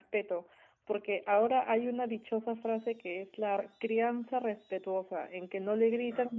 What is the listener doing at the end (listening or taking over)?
listening